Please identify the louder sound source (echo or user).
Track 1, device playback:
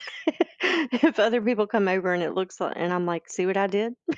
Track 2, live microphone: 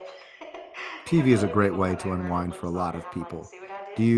user